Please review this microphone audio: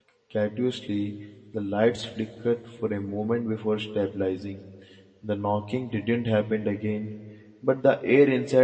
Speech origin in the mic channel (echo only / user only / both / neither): user only